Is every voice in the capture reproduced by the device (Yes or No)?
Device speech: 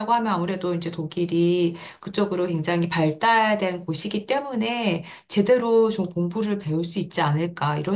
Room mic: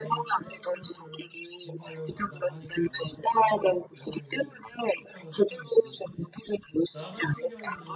No